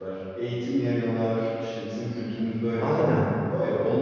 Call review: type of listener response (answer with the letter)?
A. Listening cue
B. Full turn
B